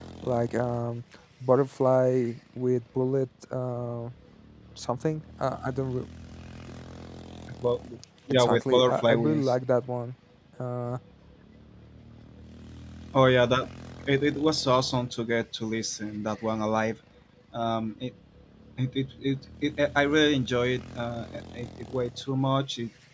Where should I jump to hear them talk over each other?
8 s

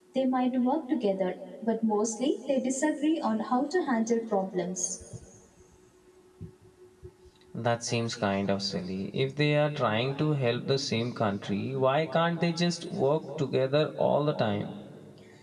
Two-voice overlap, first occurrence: none

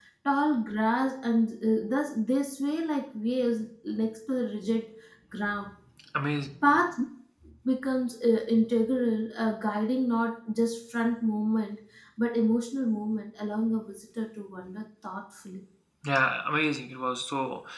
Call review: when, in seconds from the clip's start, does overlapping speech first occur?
none

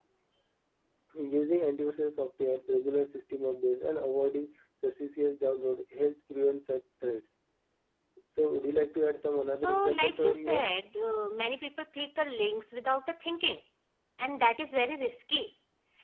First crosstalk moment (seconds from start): 9 s

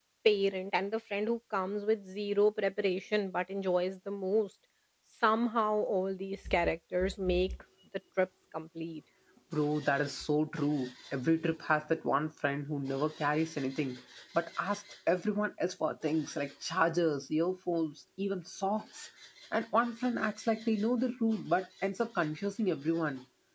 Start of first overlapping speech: none

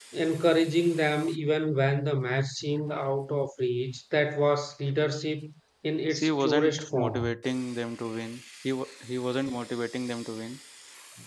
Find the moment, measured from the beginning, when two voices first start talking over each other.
6 s

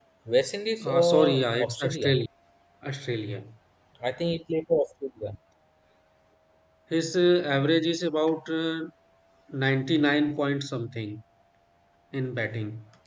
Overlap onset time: 1 s

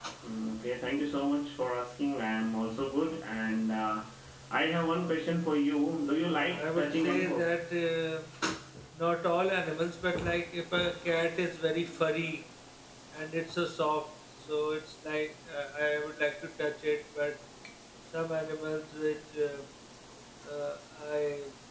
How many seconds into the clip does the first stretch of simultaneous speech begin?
6 s

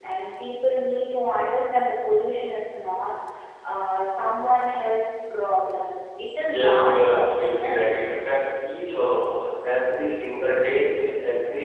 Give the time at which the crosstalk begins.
6 s

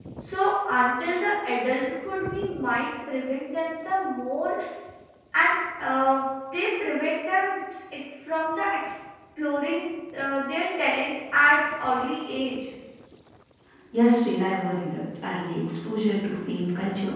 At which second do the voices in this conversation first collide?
none

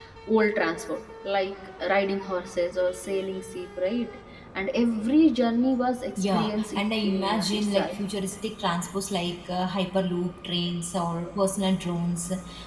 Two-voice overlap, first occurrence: 6 s

